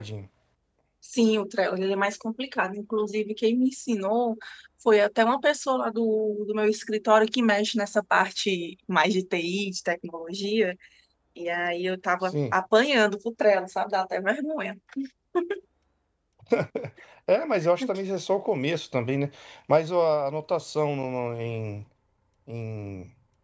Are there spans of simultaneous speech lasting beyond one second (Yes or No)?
No